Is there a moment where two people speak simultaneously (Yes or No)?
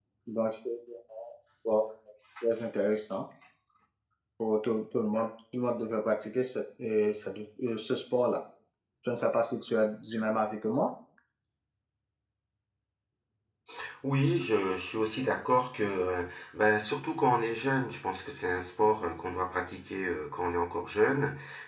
No